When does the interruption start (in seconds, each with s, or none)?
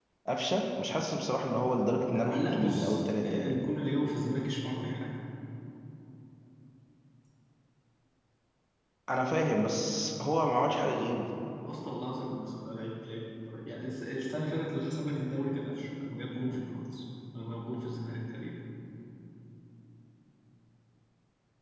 2.1 s